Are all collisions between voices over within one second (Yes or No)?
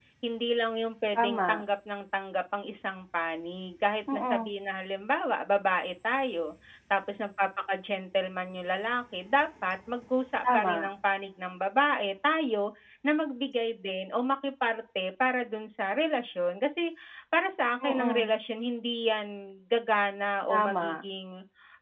Yes